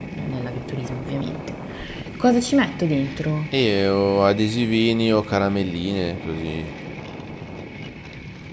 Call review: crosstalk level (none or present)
none